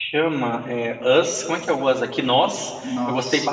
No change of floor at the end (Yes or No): Yes